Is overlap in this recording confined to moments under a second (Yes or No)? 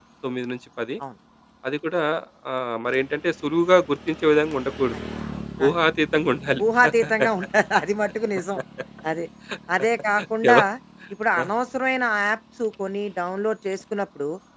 Yes